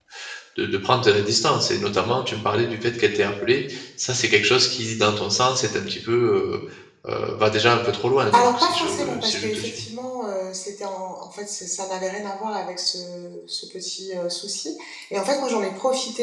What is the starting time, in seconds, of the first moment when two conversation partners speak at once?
8 s

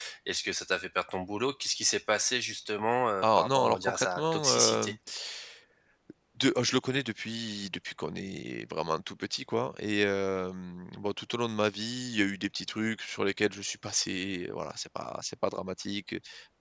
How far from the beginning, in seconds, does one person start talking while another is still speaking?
3 s

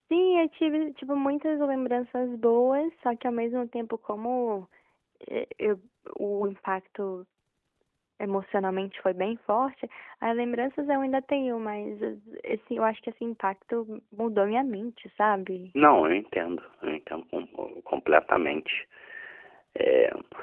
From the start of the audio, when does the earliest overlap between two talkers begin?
none

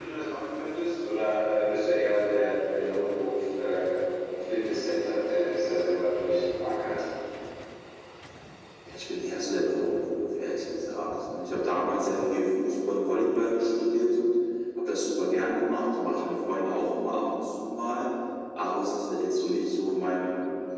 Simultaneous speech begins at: none

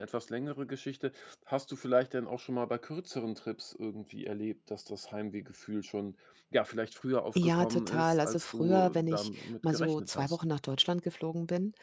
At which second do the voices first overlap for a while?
7 s

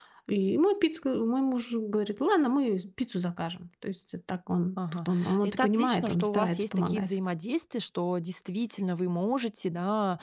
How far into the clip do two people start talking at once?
5 s

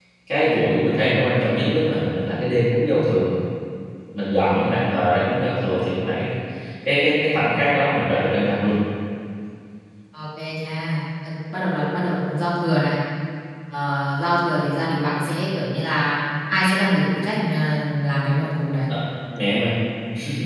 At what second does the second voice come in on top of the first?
none

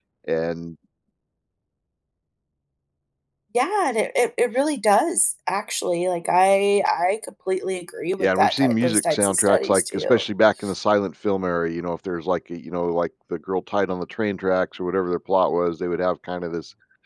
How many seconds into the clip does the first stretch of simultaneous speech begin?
8 s

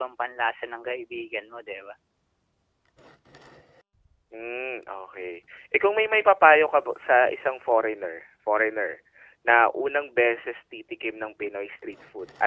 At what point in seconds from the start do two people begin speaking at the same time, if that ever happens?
none

